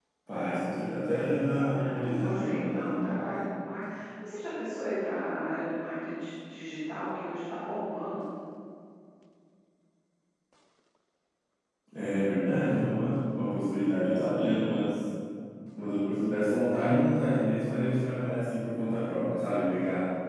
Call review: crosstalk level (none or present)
present